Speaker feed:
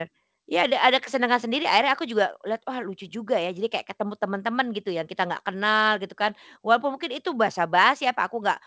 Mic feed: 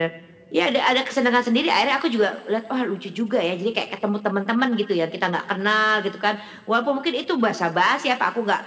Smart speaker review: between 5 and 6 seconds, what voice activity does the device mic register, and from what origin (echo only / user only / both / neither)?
echo only